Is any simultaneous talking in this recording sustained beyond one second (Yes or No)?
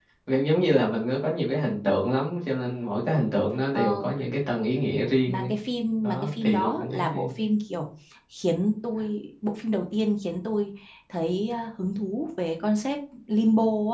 Yes